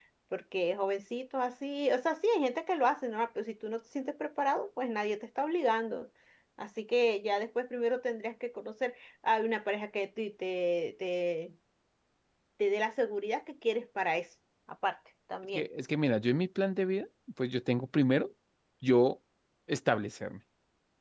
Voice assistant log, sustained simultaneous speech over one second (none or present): none